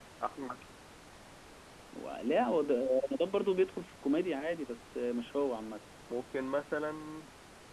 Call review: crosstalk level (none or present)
none